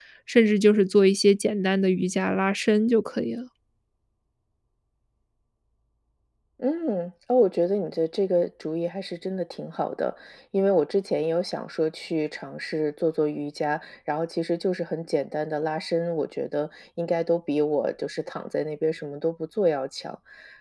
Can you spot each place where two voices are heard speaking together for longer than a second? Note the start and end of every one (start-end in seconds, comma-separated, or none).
none